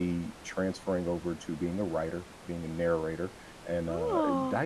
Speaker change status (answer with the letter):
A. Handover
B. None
B